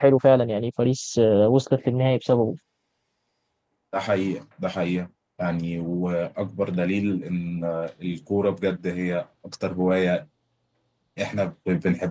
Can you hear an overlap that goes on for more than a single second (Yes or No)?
No